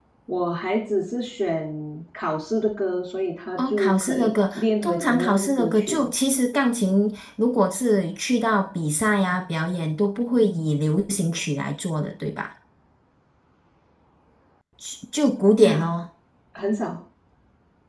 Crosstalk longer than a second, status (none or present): present